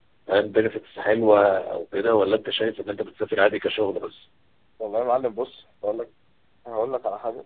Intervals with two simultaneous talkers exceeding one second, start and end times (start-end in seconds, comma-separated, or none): none